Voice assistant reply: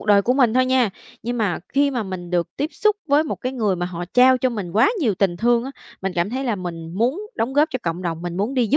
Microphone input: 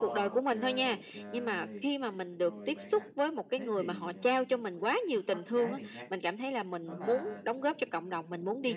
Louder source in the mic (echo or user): echo